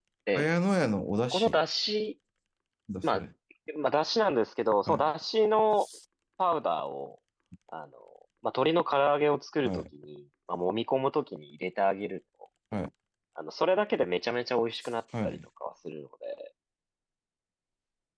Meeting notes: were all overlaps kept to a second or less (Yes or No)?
Yes